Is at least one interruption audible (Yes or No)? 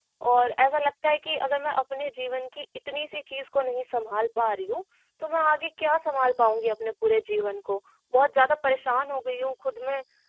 No